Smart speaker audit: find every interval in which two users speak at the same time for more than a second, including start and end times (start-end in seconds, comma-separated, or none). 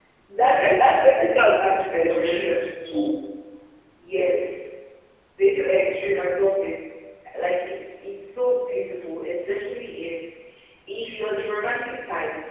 0.6-2.6